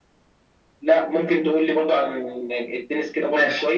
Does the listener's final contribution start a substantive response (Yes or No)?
Yes